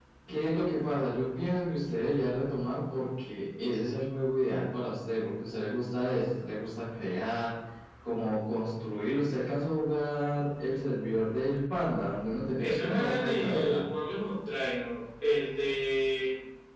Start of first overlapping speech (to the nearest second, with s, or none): 13 s